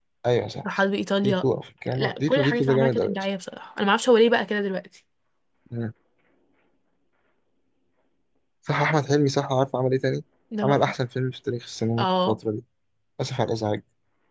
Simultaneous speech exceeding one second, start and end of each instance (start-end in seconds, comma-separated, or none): 2.0-3.2